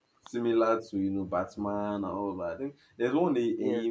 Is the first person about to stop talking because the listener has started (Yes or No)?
No